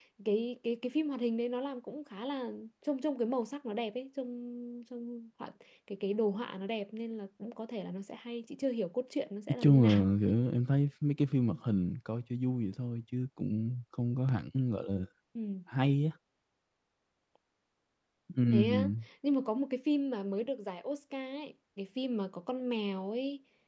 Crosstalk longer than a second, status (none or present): none